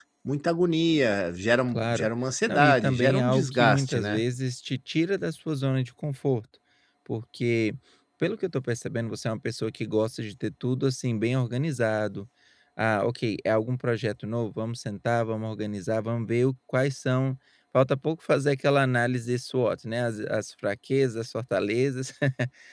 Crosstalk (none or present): present